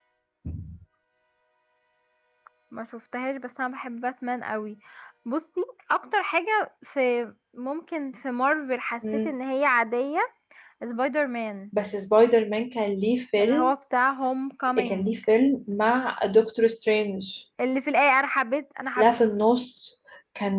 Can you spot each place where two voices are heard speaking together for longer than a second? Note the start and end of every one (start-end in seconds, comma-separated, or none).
none